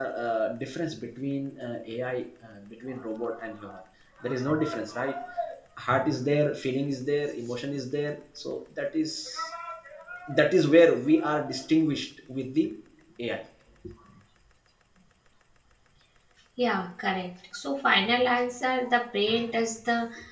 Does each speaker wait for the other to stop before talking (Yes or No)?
Yes